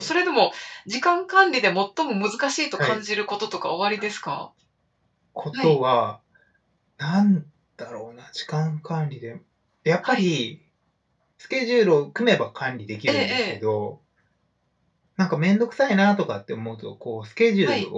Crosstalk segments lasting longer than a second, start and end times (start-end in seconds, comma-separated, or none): none